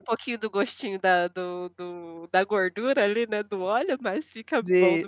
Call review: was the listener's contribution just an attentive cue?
No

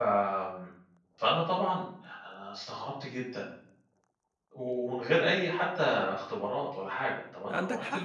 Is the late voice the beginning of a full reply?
Yes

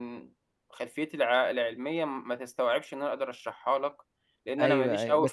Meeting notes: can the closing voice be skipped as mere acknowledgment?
No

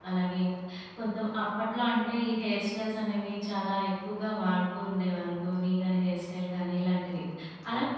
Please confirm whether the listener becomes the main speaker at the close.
No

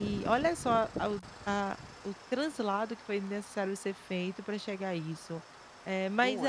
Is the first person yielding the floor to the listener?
No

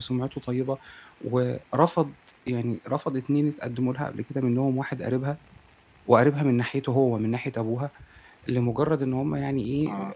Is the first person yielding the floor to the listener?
No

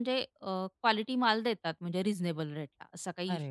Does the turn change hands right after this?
Yes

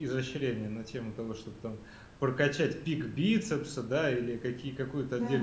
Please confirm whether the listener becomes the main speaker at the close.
No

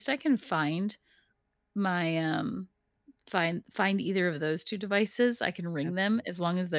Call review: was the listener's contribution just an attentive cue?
Yes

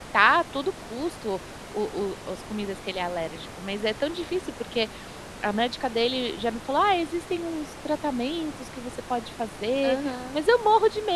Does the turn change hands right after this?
No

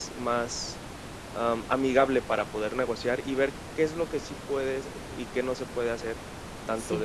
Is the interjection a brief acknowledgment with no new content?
Yes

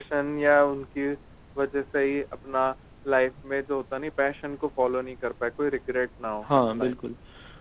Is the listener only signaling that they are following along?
No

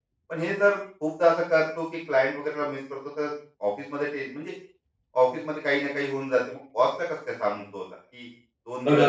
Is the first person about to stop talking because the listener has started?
Yes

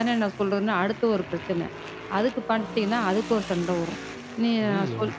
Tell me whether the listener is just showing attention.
Yes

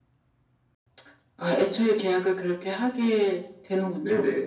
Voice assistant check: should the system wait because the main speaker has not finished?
No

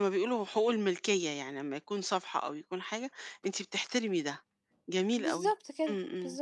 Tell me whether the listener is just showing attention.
No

